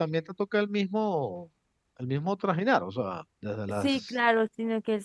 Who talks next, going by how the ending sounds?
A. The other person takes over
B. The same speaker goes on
A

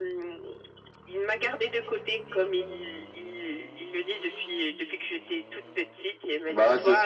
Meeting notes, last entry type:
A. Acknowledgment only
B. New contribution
B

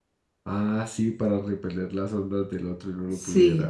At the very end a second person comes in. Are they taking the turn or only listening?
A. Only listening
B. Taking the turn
B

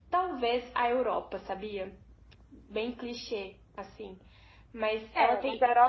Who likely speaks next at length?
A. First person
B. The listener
B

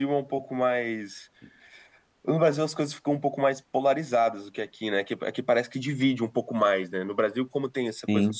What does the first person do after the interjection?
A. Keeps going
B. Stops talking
A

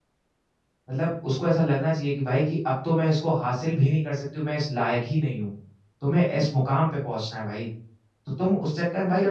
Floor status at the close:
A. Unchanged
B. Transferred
B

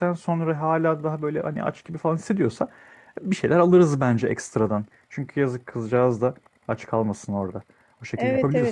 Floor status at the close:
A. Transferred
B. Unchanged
A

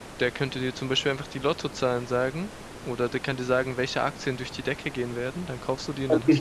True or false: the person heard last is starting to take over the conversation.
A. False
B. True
B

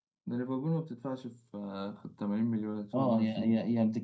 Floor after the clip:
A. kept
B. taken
B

